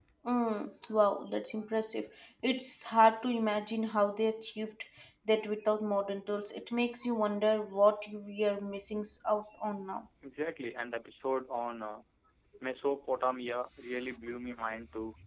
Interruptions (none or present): none